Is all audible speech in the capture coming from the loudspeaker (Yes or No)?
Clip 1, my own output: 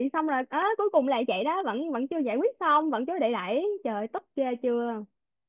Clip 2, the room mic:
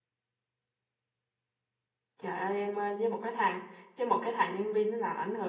No